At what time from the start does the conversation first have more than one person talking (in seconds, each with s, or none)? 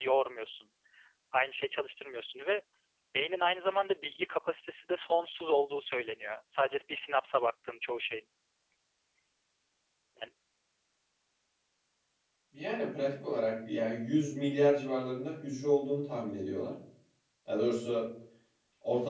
none